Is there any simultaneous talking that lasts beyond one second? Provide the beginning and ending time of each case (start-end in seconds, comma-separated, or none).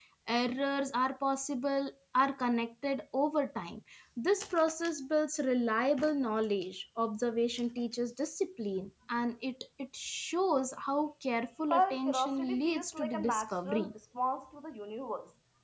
11.7-13.9